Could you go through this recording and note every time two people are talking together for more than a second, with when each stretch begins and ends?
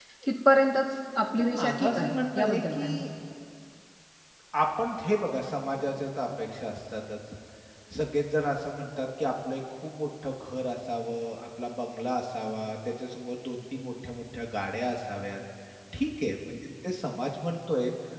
1.4-3.0

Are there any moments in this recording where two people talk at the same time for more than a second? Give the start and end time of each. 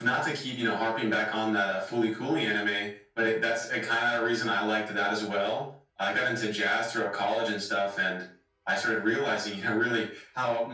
none

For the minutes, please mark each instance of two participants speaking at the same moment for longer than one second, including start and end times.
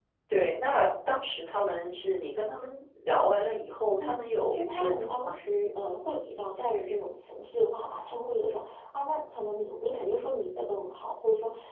4.0-5.3

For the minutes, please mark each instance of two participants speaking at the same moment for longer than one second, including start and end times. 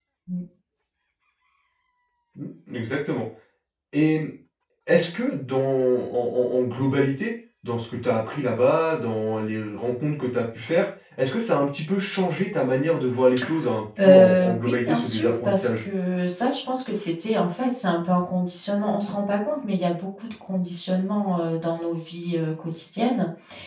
14.0-15.8

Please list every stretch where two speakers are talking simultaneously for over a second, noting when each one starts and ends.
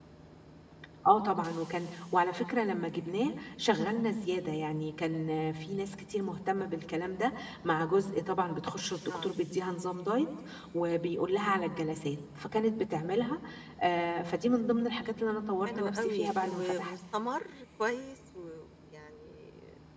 15.7-16.9

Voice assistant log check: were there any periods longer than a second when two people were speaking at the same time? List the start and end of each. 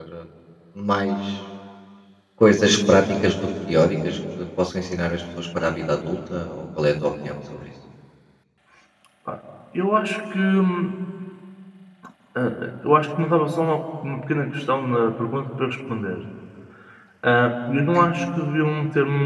none

